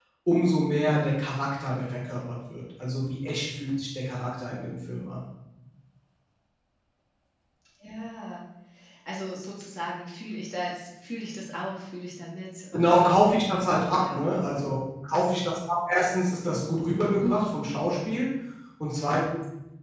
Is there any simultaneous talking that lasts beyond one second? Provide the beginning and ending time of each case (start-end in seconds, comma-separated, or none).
none